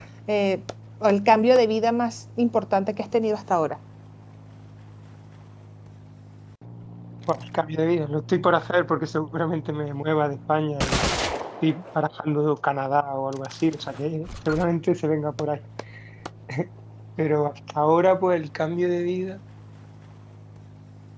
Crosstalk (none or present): none